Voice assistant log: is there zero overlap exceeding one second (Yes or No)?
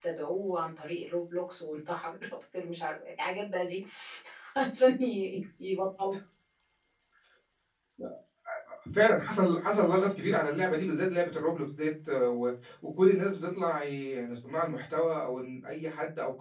Yes